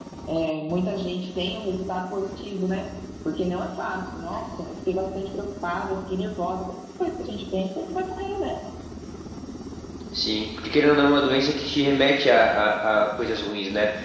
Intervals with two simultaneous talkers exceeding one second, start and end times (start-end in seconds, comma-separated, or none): none